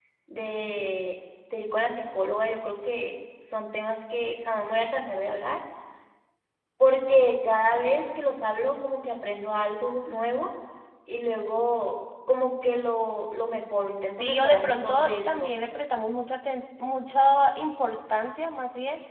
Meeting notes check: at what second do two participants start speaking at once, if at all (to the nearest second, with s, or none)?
14 s